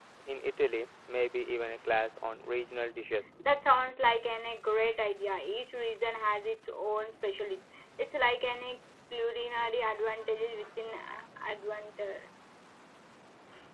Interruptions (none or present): none